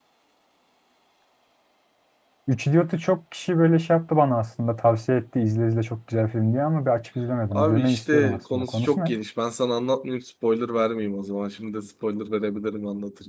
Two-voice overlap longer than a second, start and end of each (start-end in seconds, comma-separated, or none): 7.5-9.2